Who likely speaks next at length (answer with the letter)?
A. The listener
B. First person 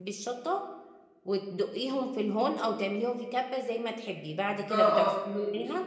A